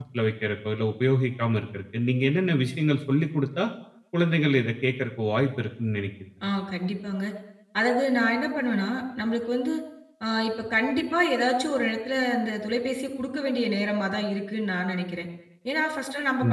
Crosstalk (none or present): none